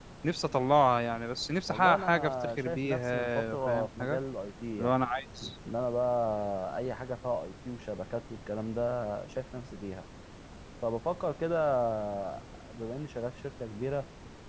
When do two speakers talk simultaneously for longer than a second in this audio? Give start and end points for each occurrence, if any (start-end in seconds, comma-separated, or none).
1.7-4.2